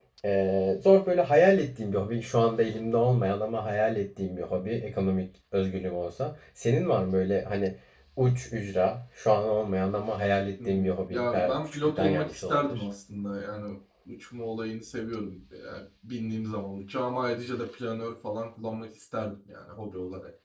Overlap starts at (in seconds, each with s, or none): 10.6 s